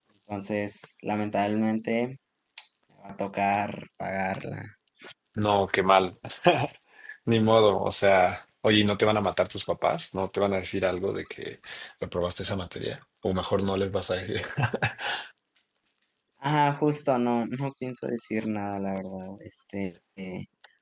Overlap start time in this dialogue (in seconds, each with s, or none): none